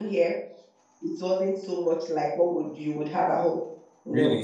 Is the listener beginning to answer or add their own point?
Yes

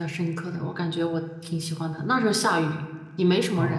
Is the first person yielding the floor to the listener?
Yes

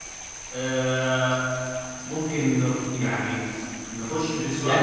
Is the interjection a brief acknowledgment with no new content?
No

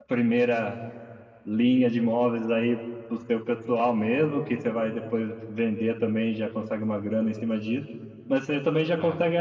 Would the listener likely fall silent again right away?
Yes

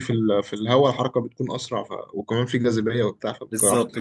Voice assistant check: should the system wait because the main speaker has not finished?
No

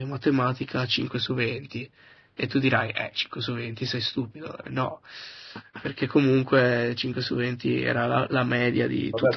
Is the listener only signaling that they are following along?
No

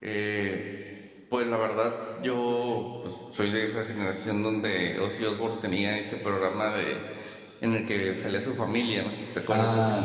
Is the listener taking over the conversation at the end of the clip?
Yes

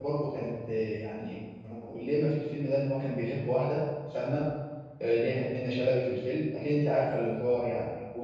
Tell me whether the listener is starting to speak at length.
No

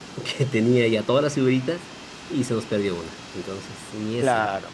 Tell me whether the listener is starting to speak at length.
Yes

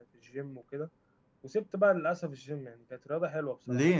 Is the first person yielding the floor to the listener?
Yes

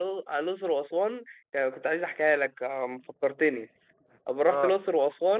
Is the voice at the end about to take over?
No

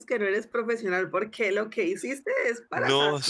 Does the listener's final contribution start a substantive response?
Yes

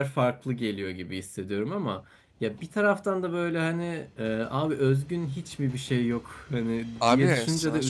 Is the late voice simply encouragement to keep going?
No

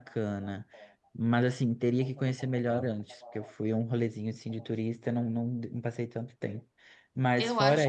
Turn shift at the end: Yes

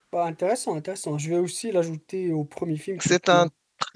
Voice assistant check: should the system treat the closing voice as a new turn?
Yes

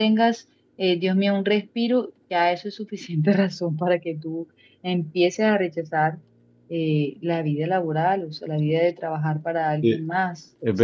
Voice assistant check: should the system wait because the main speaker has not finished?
No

